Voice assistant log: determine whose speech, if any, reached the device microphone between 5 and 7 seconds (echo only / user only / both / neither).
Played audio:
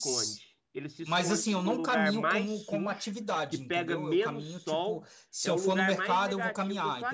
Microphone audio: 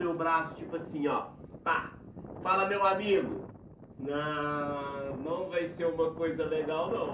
user only